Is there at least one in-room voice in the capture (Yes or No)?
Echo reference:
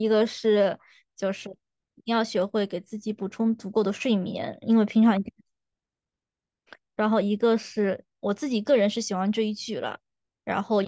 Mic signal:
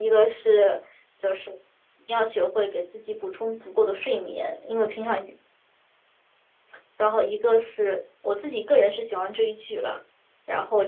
No